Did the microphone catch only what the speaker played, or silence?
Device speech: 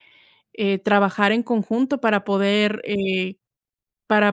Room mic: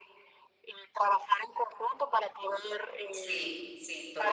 No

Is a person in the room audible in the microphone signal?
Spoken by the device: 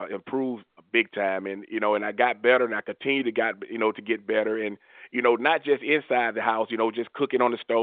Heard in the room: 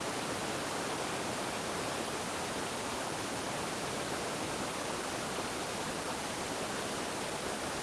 No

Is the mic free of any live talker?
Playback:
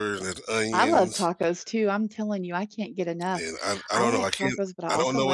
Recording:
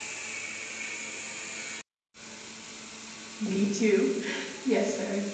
No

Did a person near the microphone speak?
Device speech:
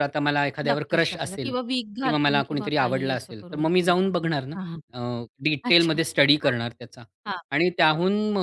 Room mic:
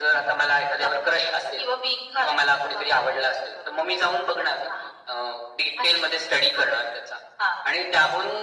No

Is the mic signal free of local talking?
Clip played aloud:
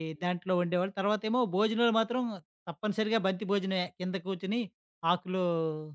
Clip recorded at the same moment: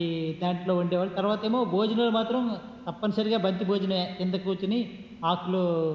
Yes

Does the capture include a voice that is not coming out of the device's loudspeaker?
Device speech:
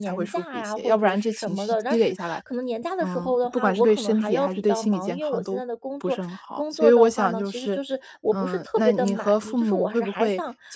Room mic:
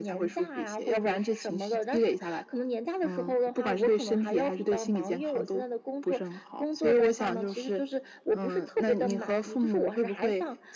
No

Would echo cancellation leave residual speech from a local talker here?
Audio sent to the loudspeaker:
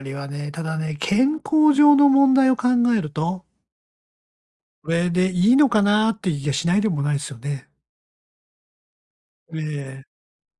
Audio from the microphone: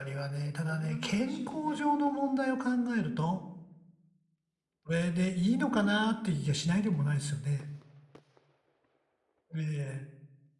Yes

